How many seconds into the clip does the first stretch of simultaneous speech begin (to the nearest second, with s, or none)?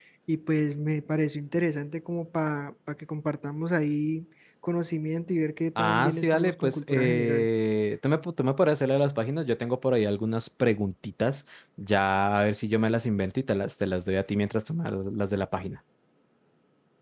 6 s